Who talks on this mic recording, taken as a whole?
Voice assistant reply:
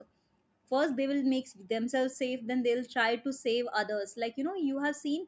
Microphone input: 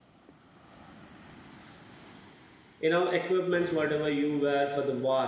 user only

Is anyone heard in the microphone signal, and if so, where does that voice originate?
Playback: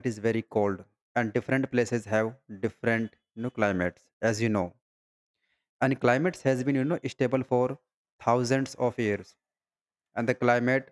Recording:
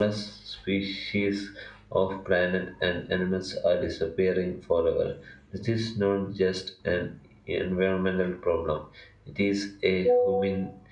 user only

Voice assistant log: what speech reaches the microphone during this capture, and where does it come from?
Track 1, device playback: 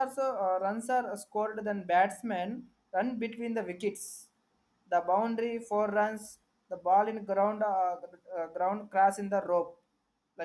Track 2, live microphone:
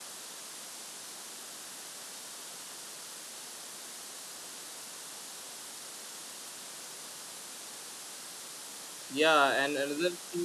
user only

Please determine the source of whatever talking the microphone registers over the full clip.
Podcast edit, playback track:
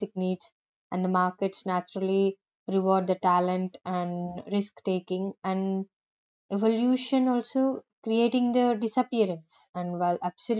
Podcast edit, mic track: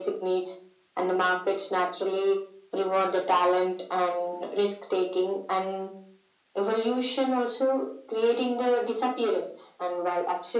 echo only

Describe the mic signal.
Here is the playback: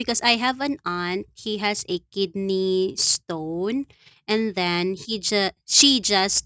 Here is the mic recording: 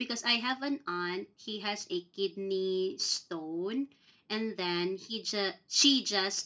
echo only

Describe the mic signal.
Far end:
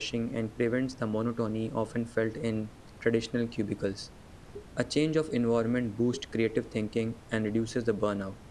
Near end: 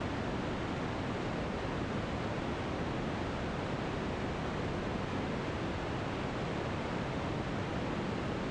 neither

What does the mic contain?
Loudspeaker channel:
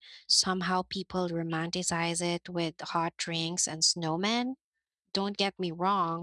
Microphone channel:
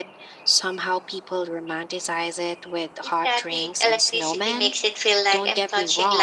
both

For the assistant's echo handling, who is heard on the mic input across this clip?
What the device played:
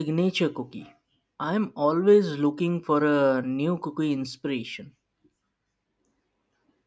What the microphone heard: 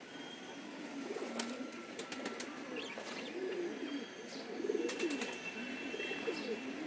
neither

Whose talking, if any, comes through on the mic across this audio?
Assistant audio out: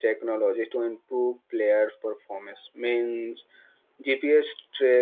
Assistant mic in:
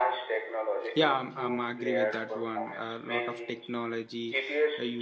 both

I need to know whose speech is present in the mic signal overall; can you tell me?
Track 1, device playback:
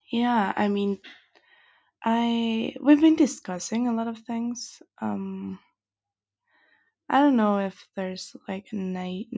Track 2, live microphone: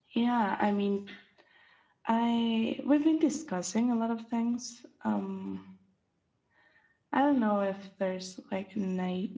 echo only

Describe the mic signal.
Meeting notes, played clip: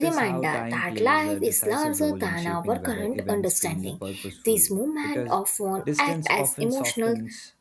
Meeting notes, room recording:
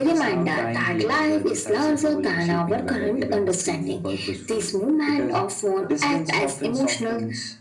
echo only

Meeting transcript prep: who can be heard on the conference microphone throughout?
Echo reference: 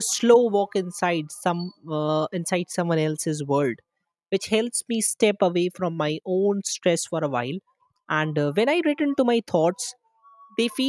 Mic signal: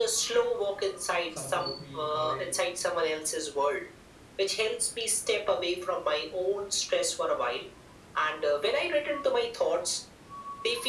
both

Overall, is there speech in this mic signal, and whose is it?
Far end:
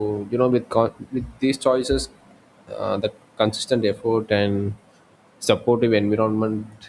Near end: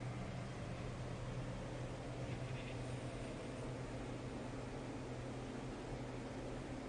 neither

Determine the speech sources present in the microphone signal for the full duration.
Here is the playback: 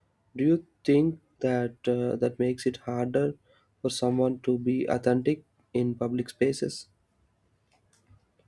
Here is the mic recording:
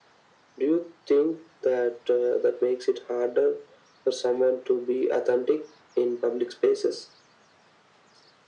echo only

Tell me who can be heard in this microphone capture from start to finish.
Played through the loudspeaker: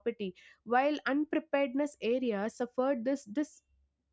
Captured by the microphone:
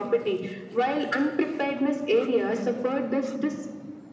echo only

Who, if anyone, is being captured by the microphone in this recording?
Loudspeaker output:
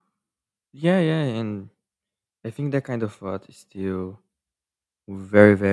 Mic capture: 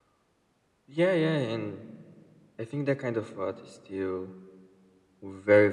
echo only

